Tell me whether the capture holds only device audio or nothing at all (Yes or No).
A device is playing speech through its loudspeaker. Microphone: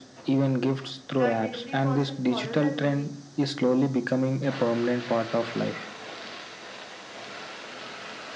No